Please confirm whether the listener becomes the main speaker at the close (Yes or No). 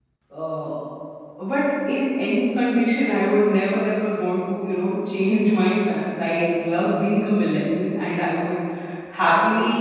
No